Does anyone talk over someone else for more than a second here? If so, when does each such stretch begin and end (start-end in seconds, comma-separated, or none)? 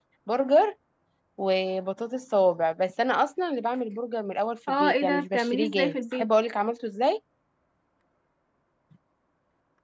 4.7-6.2